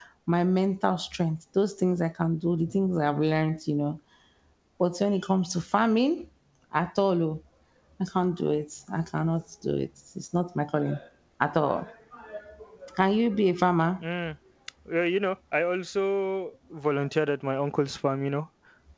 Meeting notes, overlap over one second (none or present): none